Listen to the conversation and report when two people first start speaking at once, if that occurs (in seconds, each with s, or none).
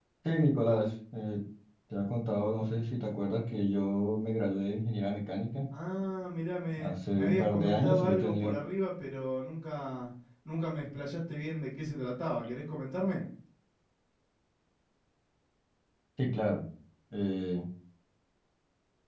6.8 s